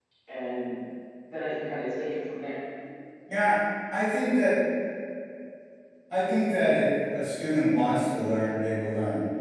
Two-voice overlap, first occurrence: none

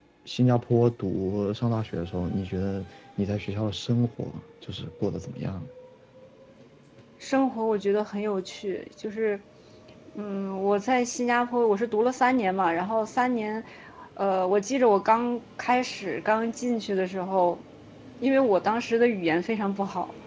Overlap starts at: none

